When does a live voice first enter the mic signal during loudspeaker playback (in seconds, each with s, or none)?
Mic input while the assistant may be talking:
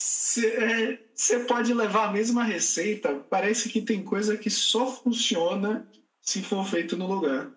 none